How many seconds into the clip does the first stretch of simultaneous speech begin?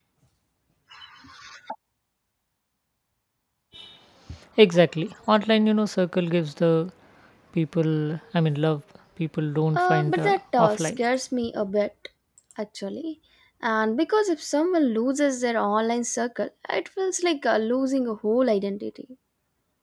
9.7 s

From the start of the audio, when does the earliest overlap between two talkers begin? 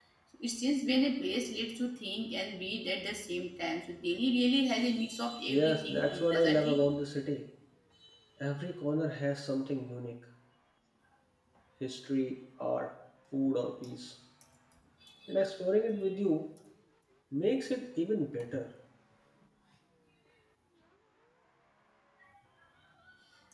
5.5 s

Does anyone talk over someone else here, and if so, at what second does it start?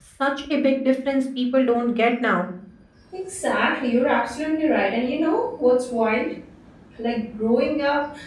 none

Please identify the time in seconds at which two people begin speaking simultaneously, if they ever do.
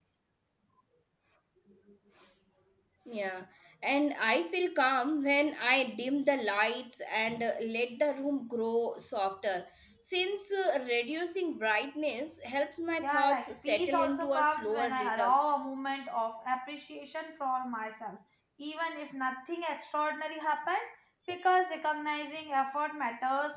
13.0 s

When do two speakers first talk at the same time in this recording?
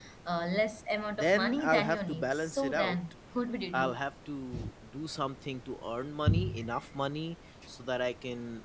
1.2 s

